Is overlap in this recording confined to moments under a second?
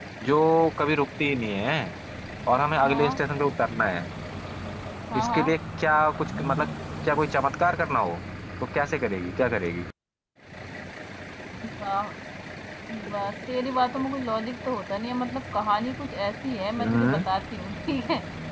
Yes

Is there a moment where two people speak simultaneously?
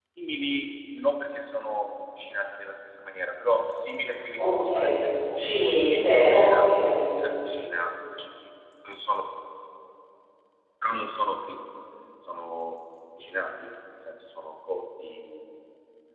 Yes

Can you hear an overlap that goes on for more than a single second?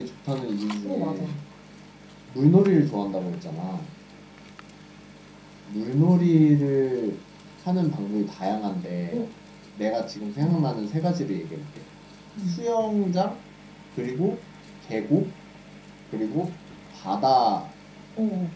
No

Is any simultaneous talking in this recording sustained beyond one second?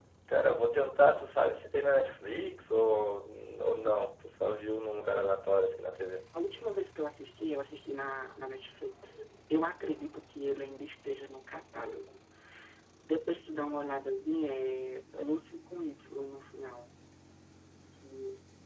No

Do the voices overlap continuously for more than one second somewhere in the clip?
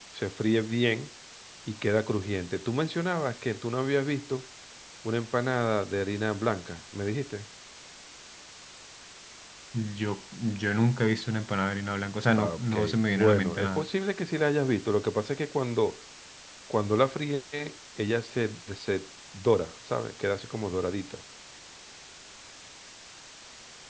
Yes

